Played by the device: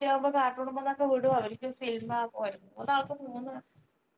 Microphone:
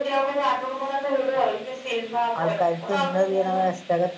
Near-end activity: present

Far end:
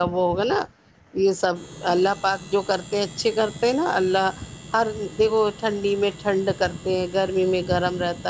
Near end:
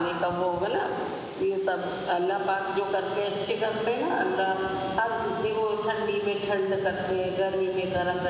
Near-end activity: none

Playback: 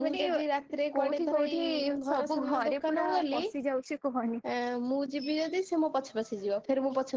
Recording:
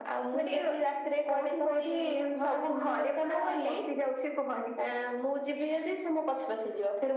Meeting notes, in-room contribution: none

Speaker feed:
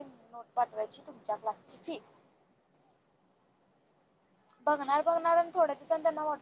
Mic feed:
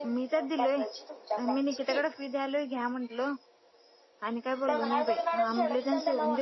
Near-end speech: present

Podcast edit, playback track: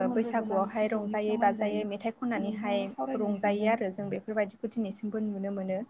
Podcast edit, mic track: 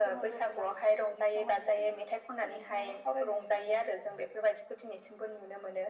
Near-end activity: none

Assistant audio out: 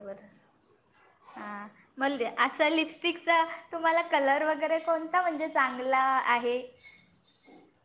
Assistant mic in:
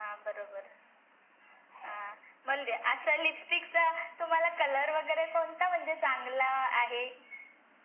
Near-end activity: none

